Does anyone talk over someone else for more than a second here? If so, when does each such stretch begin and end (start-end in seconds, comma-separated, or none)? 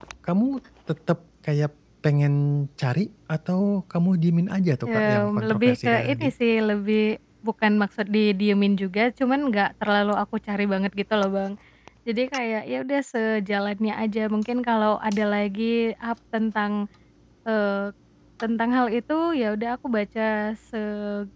4.9-6.3